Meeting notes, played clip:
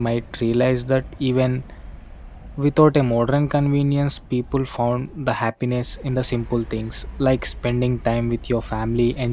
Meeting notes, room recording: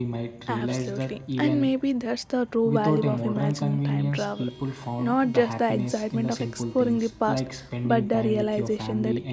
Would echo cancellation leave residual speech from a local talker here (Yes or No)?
Yes